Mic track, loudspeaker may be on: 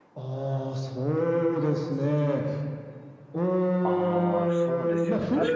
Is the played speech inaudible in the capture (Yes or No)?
No